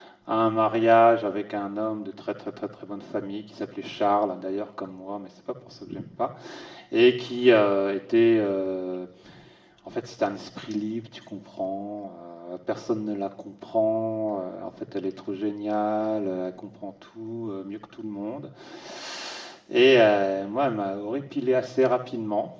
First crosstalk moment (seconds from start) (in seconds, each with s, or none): none